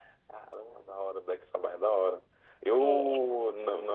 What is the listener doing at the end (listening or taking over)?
listening